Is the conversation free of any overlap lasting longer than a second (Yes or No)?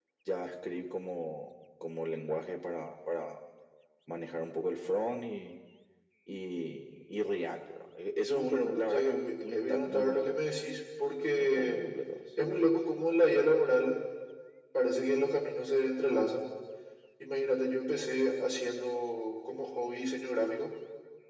No